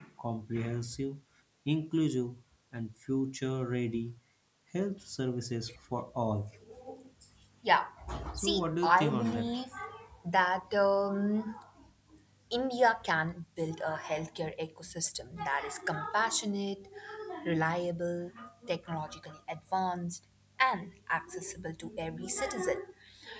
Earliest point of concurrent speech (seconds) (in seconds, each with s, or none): 8.3 s